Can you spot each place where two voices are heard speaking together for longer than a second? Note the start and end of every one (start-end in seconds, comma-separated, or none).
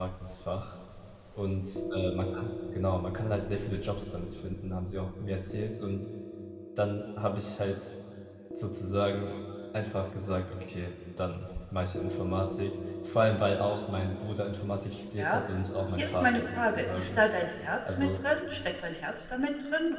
15.9-17.2